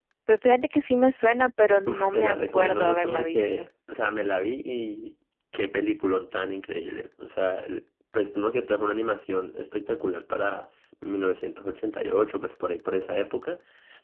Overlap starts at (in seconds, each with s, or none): 1.9 s